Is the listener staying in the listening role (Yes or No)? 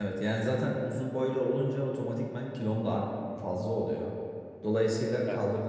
Yes